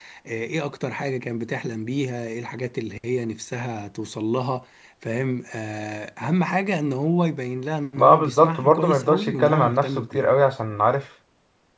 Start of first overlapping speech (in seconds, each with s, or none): 8.0 s